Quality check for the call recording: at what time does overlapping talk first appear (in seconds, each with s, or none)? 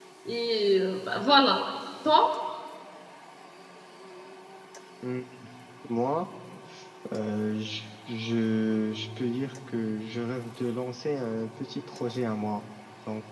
none